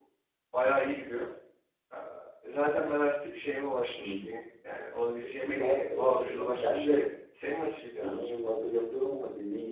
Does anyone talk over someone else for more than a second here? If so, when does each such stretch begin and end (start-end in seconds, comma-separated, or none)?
5.2-7.1